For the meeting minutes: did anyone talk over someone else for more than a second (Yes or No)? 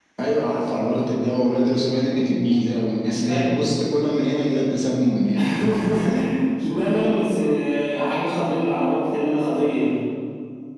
No